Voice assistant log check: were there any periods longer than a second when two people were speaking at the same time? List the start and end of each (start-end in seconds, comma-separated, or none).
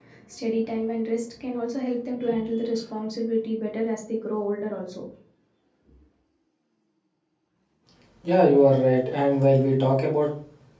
none